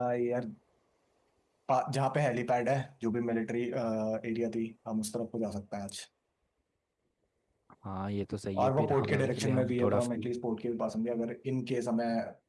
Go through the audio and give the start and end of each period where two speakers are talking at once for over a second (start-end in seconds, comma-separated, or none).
8.6-10.3